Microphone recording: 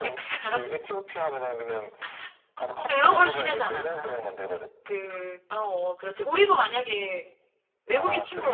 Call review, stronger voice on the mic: user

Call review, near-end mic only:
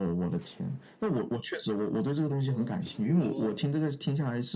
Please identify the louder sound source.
echo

